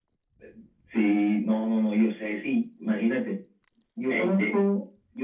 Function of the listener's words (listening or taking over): listening